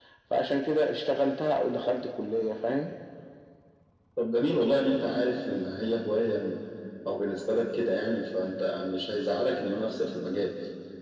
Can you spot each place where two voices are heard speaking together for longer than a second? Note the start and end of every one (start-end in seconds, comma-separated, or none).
none